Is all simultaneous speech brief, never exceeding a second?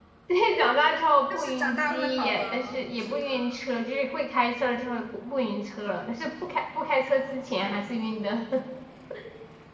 No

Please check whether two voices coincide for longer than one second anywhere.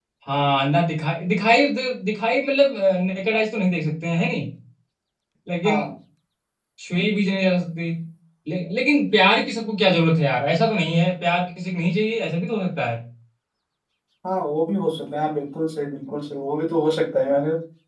No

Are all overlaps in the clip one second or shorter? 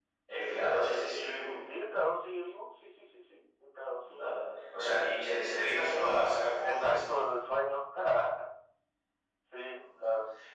Yes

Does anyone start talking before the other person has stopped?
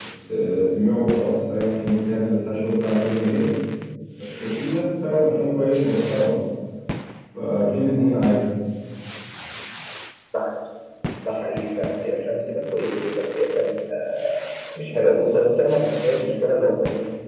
No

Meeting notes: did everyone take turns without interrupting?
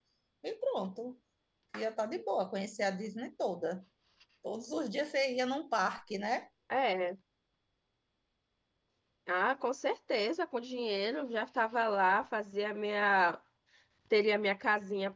Yes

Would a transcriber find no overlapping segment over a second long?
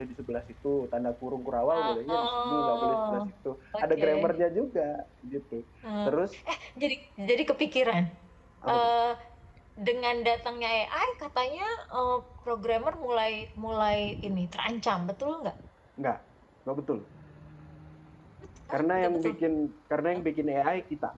No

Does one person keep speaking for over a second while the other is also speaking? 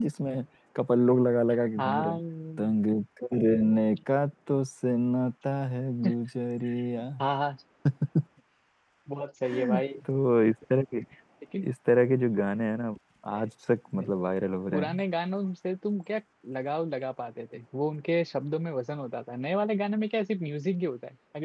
No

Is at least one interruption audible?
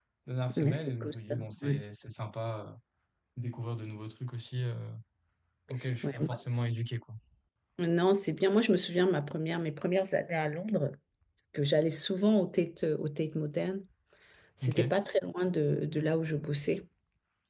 Yes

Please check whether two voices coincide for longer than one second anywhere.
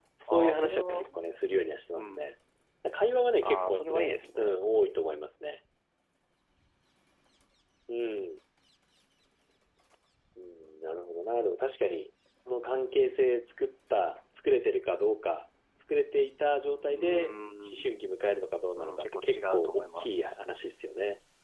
Yes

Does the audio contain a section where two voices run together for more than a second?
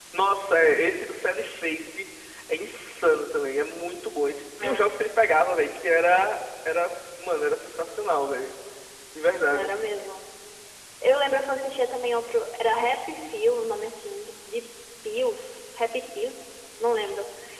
No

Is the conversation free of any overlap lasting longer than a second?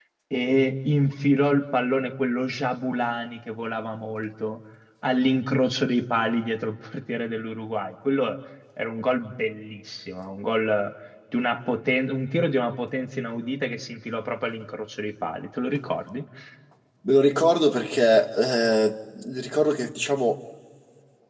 Yes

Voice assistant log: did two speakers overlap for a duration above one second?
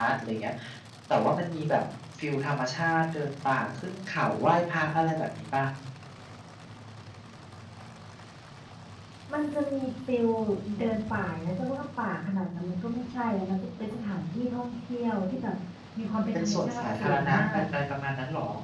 Yes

